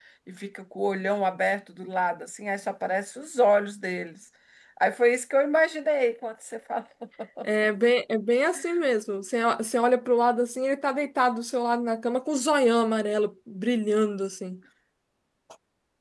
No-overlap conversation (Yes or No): Yes